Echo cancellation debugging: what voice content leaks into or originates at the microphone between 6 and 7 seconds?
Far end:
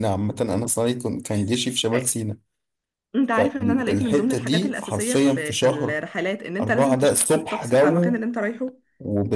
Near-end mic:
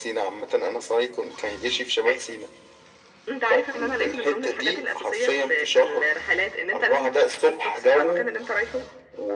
echo only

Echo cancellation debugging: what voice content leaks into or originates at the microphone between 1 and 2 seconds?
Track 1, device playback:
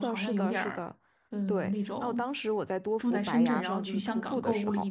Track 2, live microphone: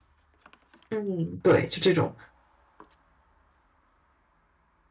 user only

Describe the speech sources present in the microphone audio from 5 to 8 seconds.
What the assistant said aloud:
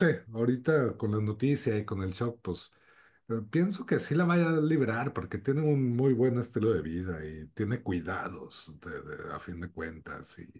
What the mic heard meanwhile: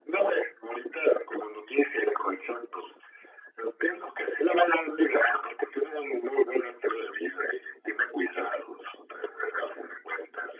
echo only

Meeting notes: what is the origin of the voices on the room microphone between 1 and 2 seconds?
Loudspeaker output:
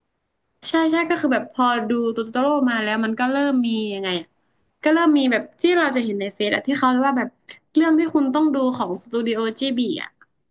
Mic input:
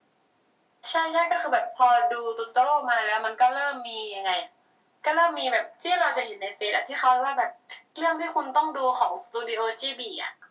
echo only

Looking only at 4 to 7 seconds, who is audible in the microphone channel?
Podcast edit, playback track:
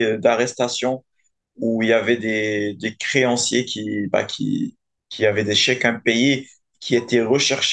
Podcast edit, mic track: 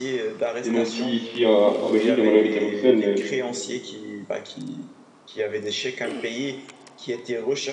echo only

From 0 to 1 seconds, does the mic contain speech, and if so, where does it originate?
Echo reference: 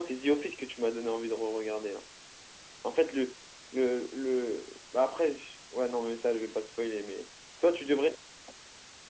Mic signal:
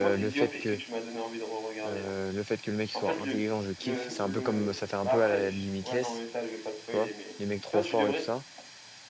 both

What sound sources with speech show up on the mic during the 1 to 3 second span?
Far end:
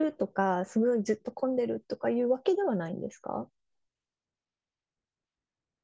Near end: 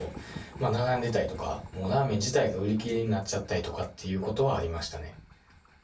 user only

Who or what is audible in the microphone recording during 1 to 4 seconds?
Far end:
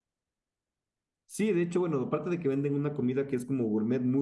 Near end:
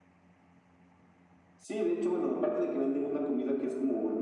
echo only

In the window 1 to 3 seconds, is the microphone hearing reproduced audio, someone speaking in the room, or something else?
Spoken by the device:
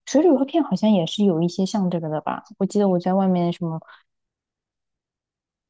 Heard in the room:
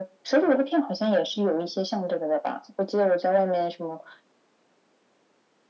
echo only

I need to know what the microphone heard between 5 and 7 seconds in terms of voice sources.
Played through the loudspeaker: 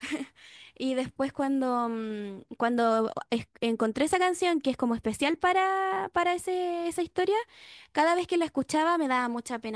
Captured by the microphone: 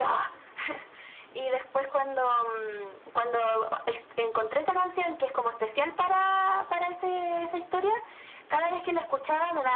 echo only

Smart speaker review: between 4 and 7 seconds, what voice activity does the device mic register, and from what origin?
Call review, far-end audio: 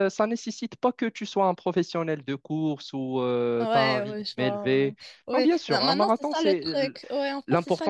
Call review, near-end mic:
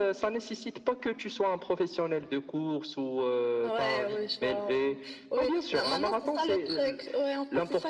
echo only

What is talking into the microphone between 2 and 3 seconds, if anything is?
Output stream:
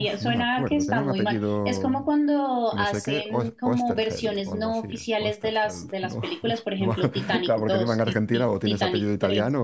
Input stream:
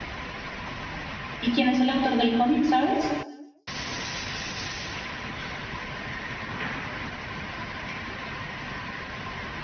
user only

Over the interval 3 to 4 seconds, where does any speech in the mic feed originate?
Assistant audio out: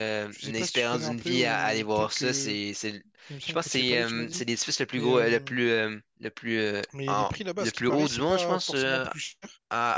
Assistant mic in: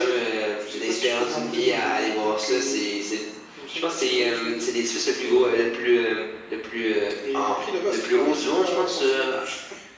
echo only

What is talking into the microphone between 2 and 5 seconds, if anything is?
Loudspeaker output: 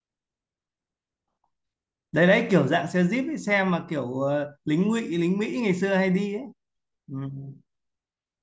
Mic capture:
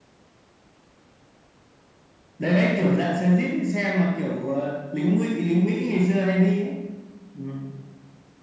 echo only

